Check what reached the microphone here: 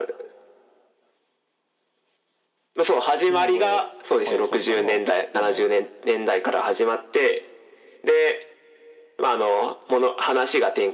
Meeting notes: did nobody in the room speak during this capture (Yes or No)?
No